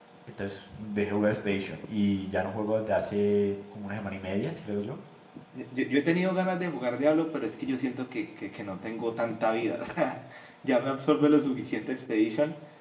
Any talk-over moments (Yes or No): No